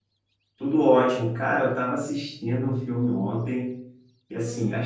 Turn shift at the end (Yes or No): No